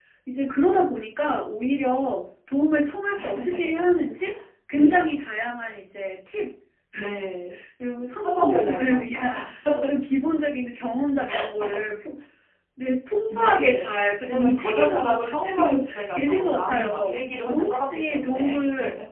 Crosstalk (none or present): present